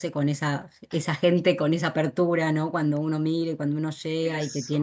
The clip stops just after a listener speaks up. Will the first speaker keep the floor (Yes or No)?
Yes